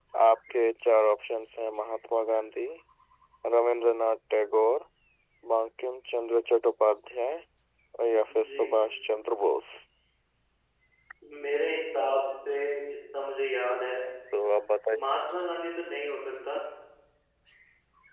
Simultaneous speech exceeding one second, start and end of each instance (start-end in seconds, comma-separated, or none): none